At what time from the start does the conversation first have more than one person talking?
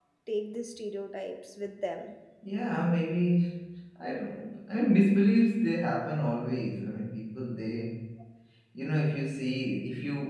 none

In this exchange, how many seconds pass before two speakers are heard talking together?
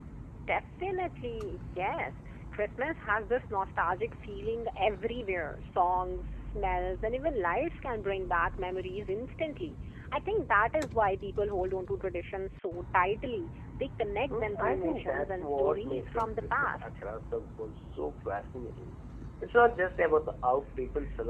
14 s

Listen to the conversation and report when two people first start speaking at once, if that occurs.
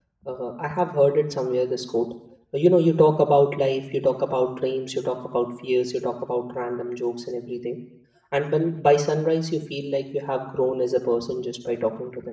none

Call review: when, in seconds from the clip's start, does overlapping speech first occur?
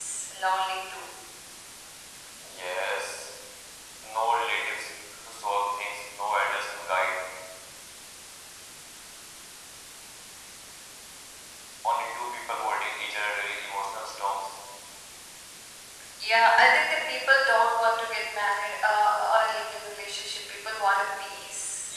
none

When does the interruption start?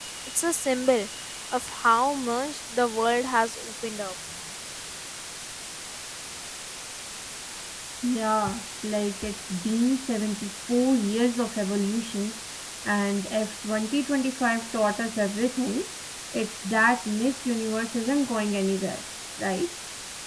none

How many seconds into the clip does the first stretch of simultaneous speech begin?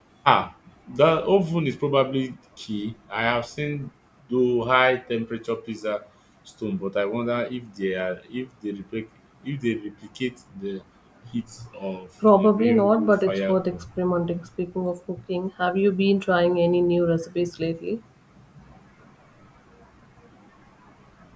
12 s

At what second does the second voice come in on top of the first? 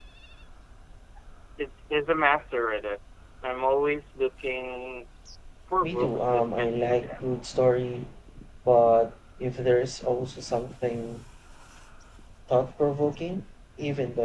6 s

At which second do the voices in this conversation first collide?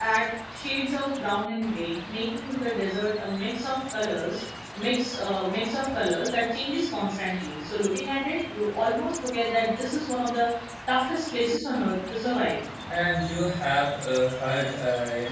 none

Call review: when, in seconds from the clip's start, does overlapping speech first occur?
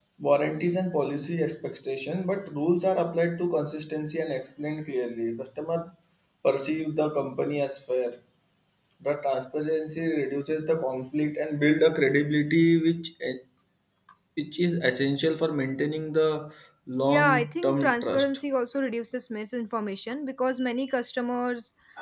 17 s

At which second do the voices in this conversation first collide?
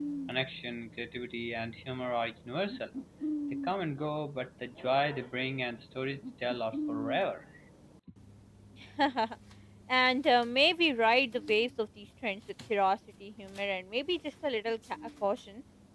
none

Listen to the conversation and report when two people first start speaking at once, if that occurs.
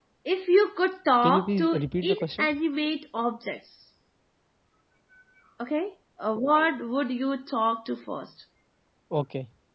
1 s

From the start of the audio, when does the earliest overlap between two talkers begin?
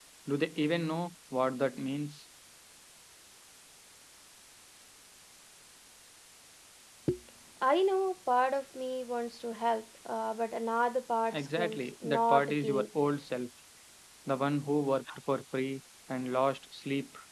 11 s

